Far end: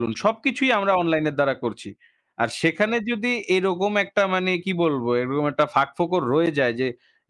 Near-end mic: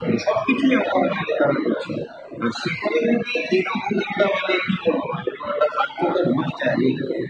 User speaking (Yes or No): No